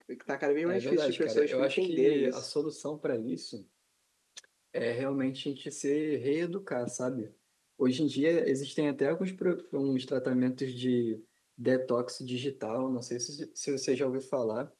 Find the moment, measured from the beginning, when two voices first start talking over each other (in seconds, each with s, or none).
0.7 s